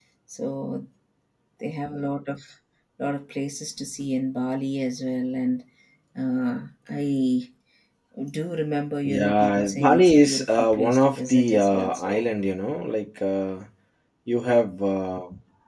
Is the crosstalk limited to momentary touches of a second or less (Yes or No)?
No